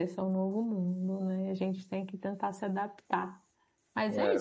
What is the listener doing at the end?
listening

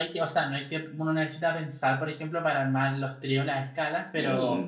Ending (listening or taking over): listening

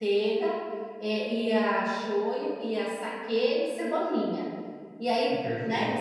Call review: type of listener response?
listening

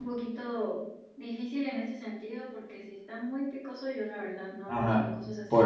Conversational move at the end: taking over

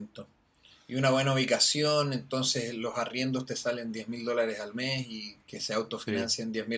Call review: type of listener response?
listening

